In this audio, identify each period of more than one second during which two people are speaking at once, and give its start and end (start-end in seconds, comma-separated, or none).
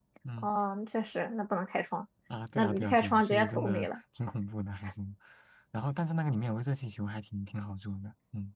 2.6-3.9